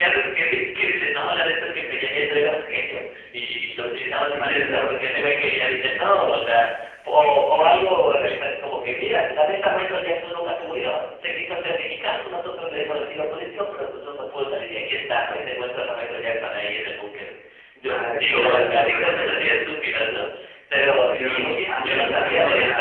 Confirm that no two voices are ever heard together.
No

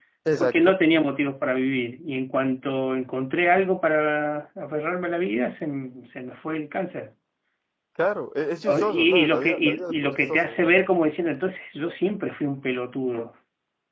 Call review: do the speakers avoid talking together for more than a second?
No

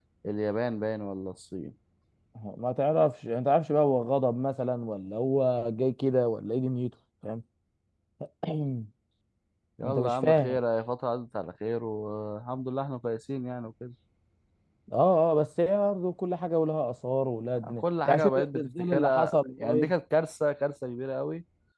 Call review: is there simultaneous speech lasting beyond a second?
Yes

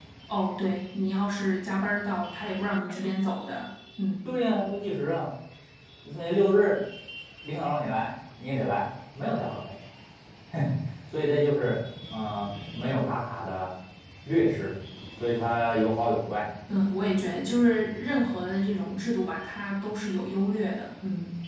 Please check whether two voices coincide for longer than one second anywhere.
No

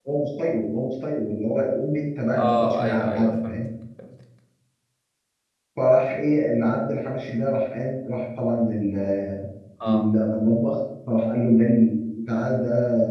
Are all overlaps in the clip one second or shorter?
No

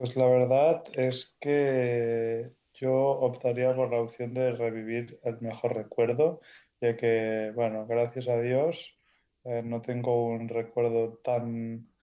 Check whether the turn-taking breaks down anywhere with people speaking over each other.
No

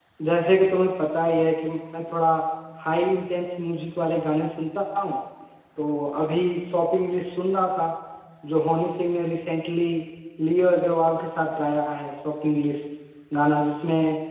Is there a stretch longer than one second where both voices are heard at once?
No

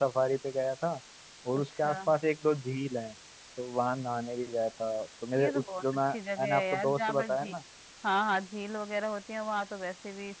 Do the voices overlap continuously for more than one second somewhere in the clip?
Yes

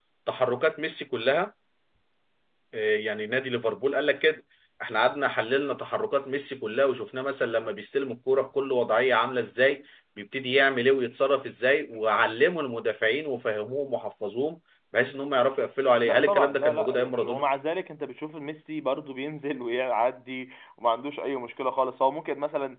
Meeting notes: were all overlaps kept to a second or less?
No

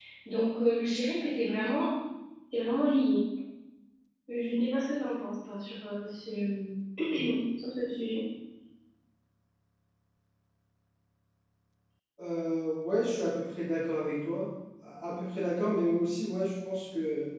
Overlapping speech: No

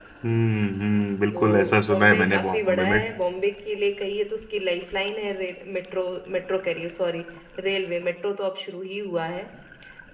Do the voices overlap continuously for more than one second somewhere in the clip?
Yes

